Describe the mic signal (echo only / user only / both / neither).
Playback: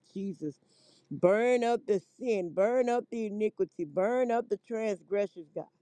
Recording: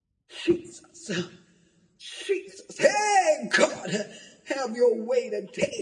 user only